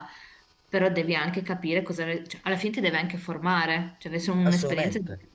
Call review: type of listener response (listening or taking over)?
taking over